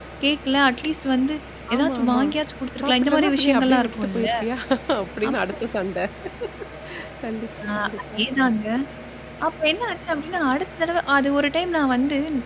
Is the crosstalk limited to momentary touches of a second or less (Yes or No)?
No